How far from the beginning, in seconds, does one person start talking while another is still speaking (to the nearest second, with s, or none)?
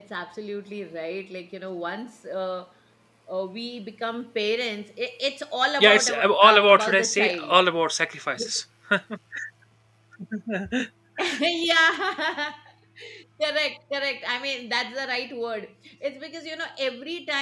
6 s